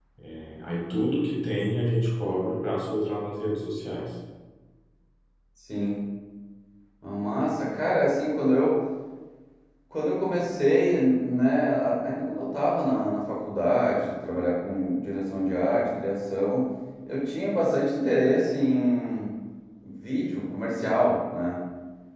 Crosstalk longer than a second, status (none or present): none